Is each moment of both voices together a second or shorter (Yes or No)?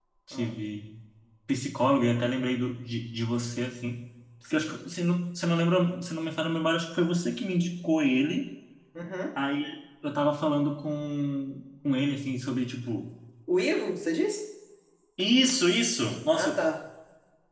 Yes